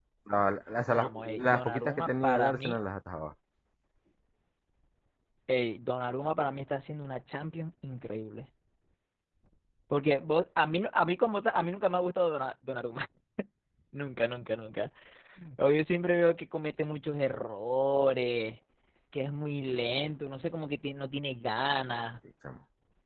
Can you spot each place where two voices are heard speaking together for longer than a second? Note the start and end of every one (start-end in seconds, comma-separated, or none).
0.9-2.8